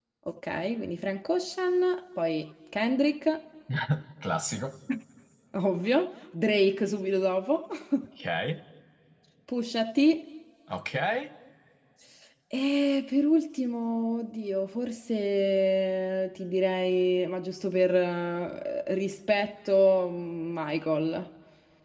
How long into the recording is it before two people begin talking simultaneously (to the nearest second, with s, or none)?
none